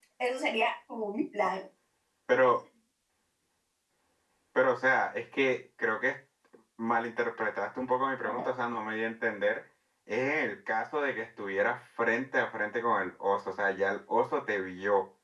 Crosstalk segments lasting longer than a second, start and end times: none

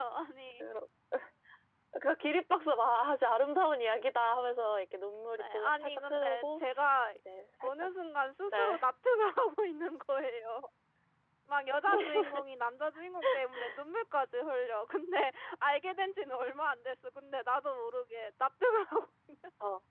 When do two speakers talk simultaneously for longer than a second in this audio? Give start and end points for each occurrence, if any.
5.4-6.6

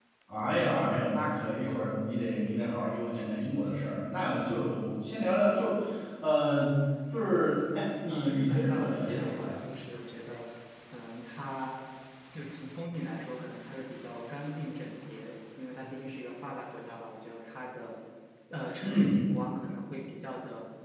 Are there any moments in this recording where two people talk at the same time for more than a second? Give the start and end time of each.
8.1-9.6

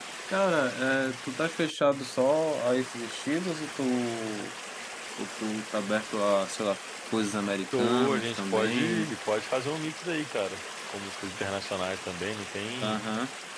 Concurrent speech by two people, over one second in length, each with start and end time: 7.7-9.1

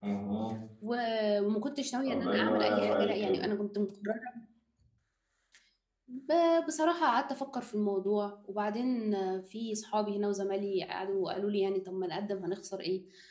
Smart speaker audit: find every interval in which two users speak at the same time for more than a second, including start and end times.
2.1-3.4

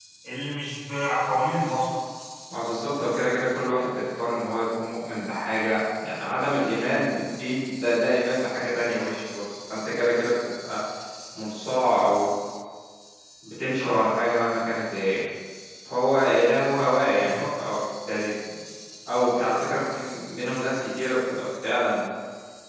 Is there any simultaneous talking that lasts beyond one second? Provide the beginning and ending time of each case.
none

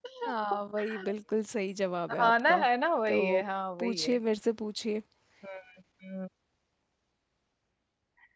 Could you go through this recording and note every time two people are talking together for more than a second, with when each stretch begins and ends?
none

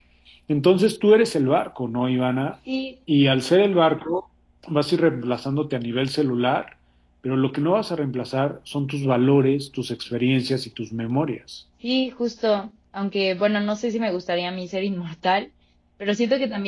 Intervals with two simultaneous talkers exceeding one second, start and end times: none

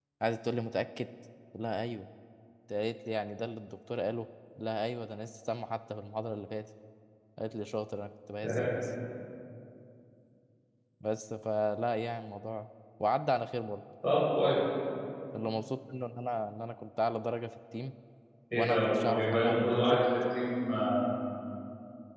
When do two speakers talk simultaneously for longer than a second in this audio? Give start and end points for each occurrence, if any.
18.5-20.0

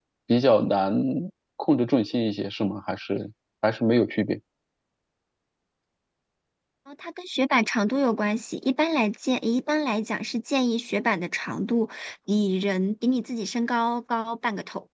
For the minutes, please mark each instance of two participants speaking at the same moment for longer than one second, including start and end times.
none

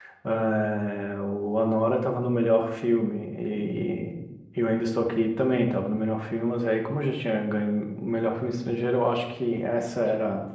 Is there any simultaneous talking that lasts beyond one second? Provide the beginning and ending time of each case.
none

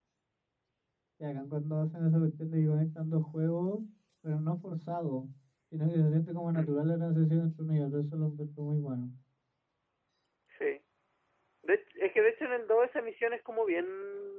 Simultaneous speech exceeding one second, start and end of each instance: none

